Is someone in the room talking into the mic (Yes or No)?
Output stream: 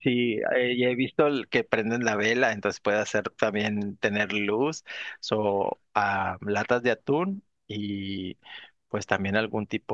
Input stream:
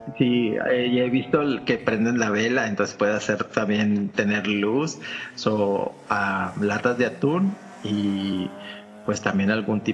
No